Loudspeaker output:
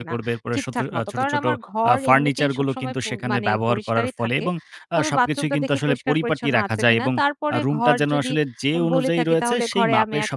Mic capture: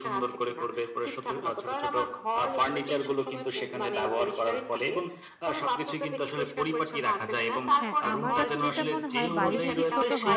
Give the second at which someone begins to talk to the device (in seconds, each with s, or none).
7.8 s